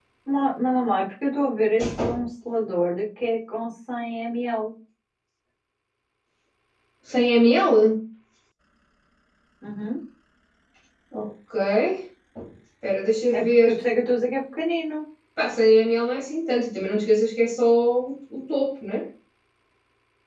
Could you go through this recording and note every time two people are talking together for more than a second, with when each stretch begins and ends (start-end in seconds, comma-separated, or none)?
none